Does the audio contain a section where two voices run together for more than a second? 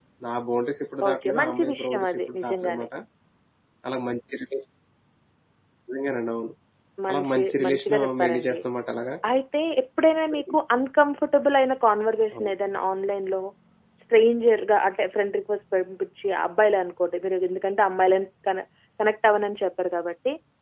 Yes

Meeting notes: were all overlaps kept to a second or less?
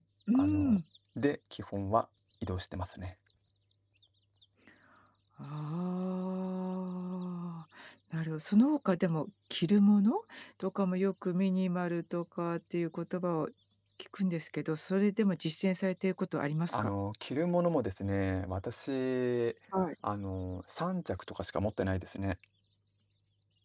Yes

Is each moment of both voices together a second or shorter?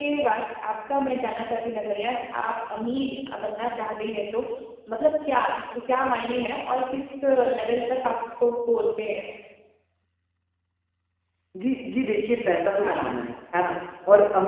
Yes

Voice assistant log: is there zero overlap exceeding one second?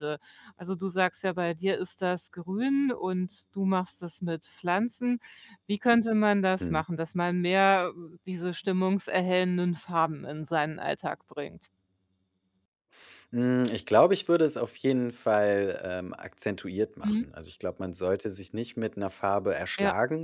Yes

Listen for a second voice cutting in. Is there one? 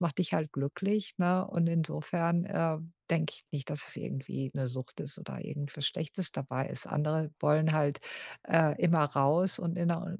No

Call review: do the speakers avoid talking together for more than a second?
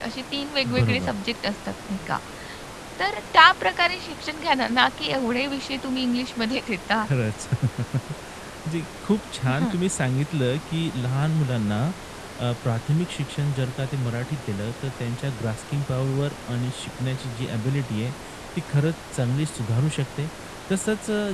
Yes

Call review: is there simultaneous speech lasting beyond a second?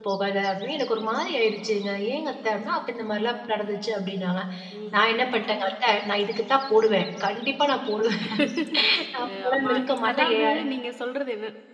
Yes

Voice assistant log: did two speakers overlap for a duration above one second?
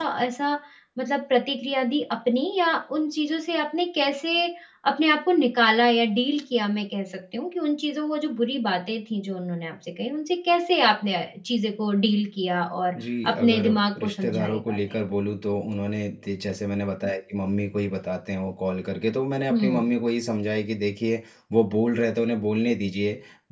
Yes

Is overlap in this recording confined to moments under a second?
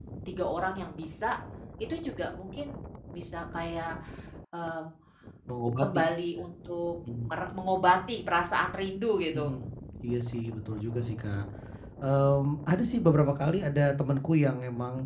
Yes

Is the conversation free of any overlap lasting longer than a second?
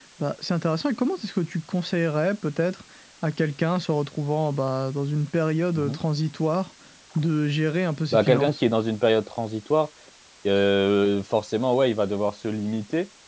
Yes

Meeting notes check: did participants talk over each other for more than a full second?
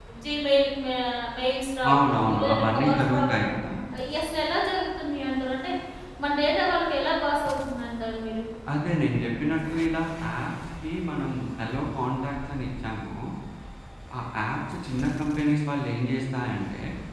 Yes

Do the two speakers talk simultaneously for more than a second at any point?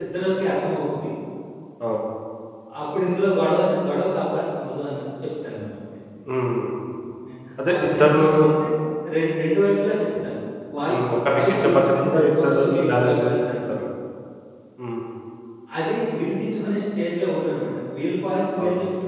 Yes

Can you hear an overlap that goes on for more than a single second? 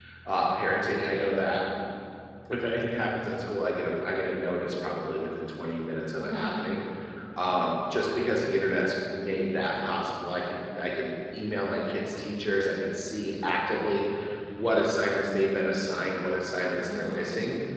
No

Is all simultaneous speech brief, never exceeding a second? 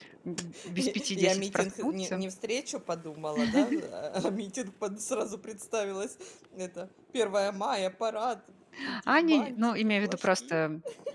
No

